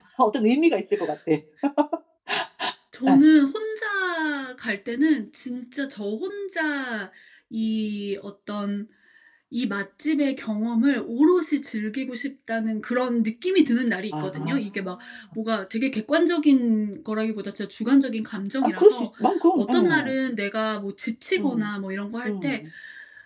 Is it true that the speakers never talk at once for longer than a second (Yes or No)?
Yes